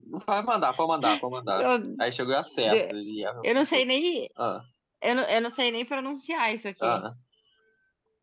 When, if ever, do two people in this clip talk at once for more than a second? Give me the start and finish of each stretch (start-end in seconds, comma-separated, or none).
none